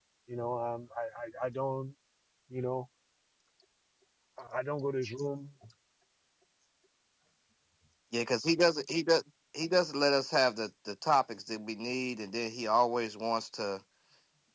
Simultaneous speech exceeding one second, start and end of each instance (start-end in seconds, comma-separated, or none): none